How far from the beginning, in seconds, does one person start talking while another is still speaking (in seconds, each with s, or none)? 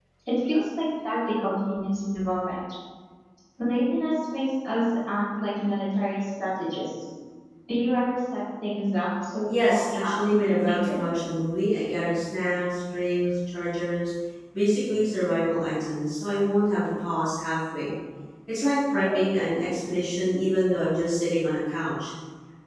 9.5 s